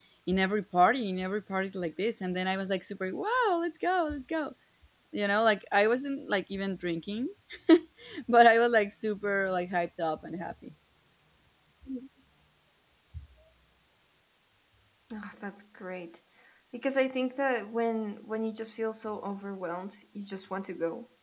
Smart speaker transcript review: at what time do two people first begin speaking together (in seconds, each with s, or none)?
none